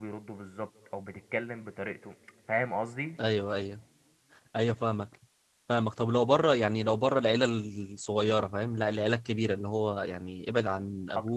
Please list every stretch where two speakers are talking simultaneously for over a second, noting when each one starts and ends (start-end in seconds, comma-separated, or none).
none